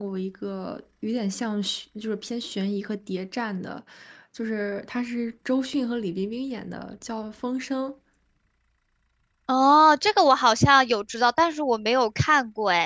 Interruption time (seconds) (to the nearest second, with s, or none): none